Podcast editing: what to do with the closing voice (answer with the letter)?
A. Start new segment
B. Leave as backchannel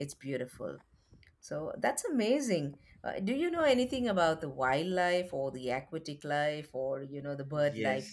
A